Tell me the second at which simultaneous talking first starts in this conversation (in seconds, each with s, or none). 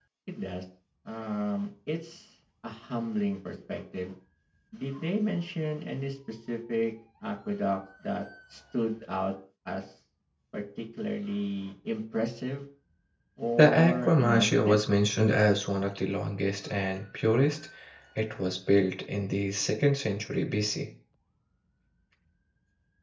13.6 s